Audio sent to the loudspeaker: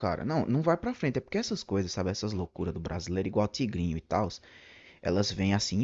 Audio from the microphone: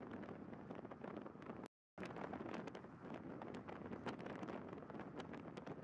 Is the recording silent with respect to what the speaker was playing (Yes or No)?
Yes